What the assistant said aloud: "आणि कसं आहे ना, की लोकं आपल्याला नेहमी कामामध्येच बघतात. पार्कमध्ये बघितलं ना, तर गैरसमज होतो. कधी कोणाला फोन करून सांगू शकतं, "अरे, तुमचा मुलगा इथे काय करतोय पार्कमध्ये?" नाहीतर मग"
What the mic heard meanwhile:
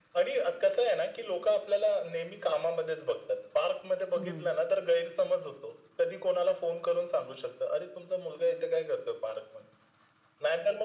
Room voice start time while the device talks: 4.2 s

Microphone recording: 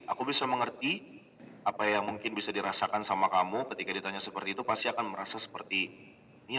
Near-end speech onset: none

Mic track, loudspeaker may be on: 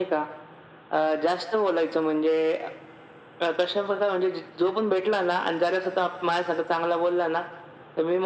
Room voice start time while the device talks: none

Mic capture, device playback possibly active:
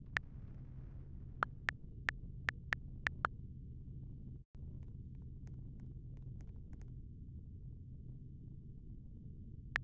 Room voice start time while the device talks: none

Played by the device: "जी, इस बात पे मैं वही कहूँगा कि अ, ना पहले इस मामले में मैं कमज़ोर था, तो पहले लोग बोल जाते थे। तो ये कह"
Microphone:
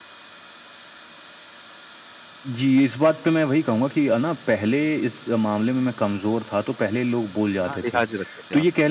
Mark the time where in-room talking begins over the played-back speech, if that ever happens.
7.7 s

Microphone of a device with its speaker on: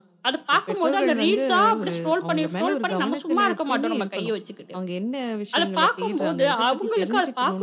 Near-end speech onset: none

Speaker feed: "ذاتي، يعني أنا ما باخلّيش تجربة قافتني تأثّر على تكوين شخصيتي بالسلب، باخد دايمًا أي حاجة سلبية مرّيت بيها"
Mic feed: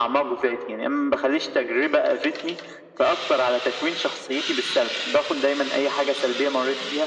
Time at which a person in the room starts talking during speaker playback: none

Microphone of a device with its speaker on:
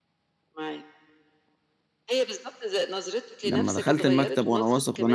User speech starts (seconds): 3.4 s

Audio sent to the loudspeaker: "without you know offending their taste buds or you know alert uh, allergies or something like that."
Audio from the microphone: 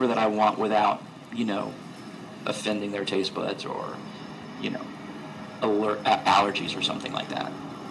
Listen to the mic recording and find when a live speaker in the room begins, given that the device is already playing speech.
none

